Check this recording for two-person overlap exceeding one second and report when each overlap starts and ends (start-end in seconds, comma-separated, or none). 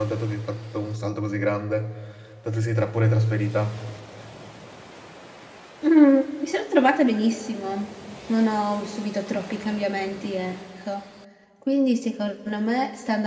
none